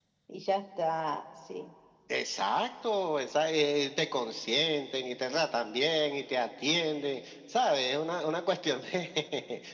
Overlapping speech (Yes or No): No